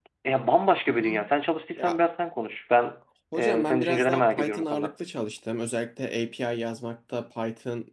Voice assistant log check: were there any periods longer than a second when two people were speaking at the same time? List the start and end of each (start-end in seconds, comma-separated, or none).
3.3-4.9